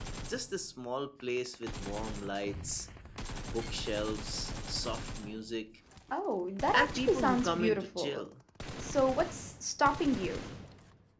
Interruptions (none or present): present